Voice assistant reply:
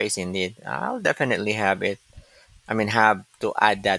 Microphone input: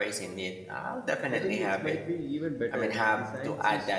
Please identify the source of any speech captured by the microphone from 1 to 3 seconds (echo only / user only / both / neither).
both